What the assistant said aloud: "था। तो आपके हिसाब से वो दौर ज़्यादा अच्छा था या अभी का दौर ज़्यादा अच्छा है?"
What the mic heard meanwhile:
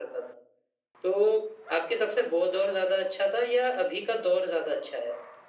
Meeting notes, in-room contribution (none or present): none